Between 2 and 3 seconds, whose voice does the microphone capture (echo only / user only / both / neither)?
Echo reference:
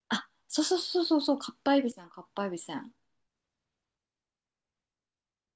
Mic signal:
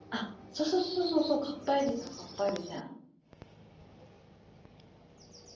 echo only